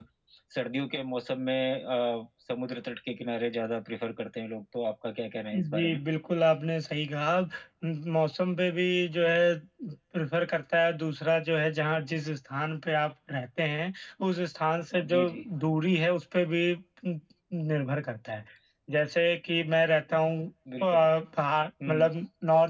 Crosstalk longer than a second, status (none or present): none